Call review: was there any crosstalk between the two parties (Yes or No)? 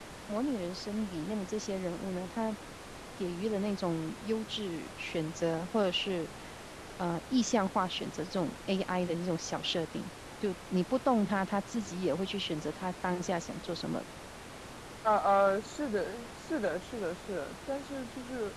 No